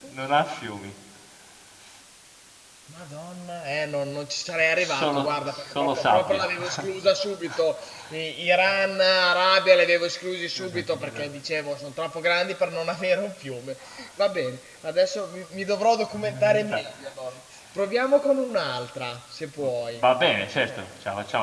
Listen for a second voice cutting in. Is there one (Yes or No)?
Yes